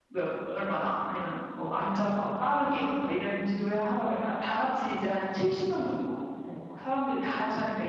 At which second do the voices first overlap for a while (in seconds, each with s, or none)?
2.6 s